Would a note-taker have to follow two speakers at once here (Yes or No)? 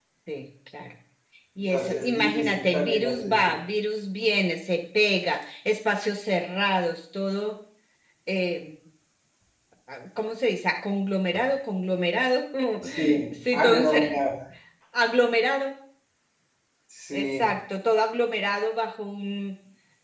Yes